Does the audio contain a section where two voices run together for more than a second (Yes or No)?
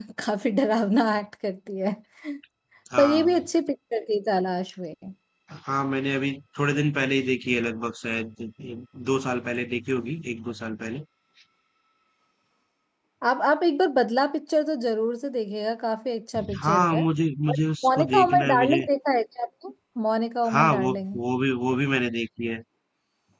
Yes